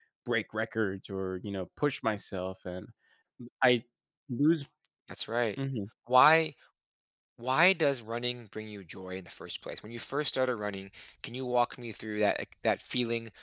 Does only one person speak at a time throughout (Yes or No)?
Yes